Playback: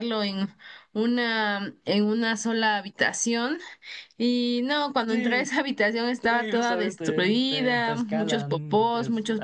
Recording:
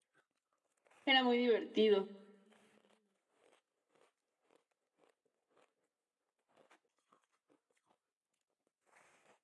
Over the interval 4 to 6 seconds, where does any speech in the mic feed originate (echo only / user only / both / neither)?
neither